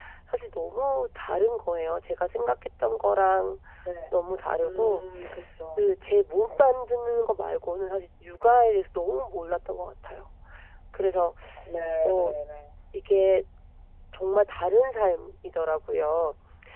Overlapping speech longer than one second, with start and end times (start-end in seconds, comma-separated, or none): none